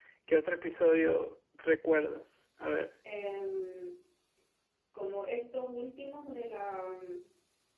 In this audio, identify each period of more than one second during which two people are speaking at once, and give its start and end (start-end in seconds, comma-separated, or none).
none